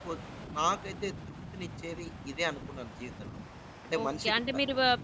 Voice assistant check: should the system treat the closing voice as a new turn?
Yes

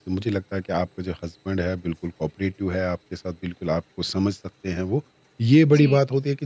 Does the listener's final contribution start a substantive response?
No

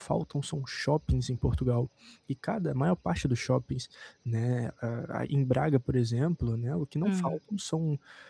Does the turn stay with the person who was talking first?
Yes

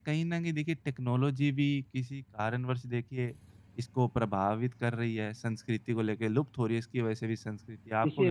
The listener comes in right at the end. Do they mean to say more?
Yes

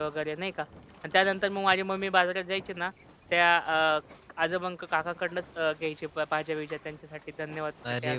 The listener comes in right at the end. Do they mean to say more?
Yes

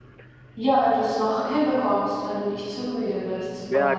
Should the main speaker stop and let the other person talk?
Yes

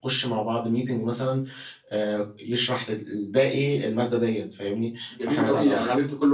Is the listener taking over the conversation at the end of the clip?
Yes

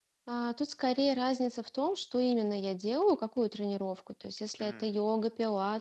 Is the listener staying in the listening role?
Yes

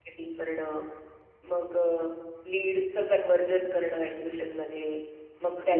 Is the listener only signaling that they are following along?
Yes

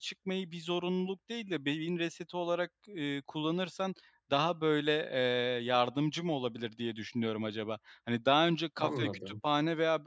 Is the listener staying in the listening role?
Yes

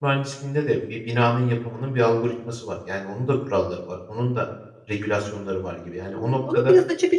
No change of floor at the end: No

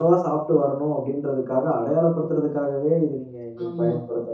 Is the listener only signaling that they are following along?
No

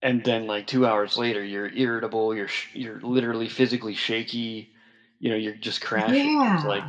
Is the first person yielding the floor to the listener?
No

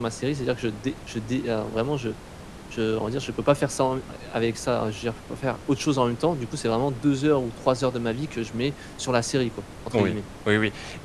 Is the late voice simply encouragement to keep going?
No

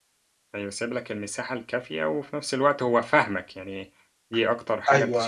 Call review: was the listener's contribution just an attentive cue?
No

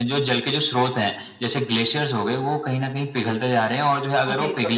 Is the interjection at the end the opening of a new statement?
No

